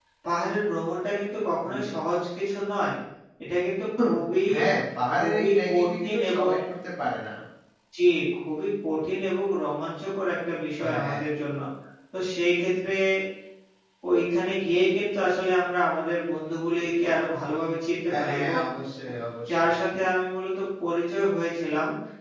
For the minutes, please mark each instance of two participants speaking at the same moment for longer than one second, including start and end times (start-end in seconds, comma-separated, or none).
5.2-6.5